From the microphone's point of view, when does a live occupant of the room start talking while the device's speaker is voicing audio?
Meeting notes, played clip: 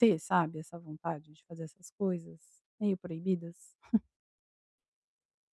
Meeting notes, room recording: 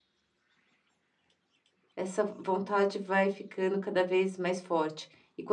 2.0 s

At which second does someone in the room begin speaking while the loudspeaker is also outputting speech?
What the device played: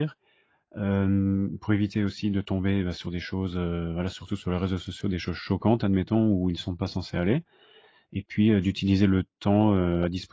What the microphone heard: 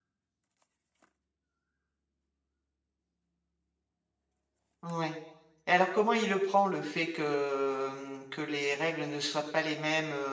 4.8 s

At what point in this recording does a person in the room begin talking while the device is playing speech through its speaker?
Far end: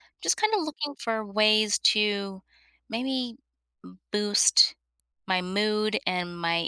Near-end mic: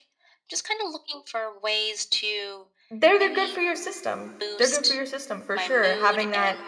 2.9 s

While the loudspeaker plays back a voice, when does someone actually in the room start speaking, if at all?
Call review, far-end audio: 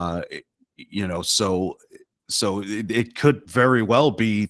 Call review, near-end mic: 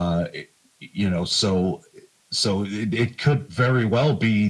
none

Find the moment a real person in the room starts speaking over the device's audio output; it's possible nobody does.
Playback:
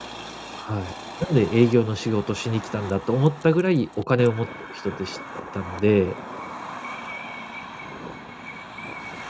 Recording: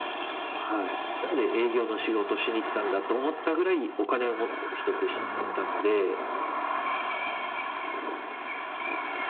5.1 s

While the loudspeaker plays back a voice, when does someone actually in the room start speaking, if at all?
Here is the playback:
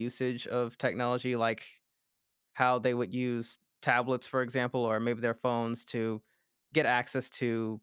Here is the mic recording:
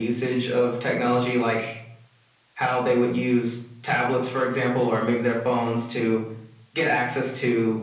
none

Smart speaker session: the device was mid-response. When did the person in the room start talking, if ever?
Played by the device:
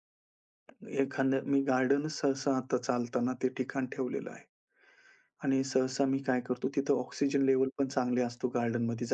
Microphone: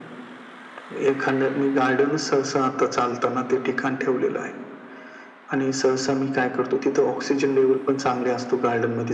none

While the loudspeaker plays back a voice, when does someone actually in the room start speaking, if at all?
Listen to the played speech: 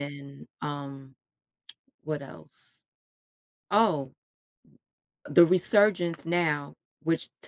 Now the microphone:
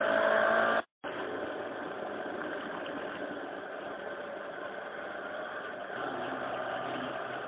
none

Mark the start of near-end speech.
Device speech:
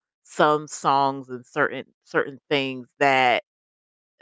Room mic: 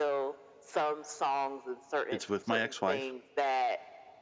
2.1 s

